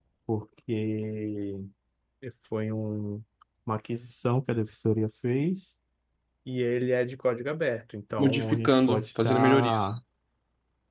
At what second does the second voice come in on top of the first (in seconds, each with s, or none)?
8.2 s